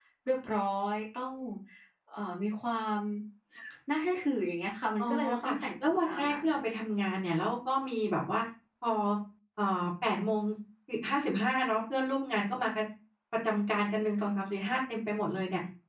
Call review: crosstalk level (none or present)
present